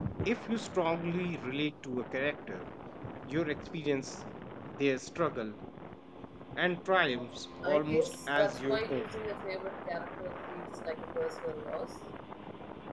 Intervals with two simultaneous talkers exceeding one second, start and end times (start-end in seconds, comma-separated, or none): 7.6-9.1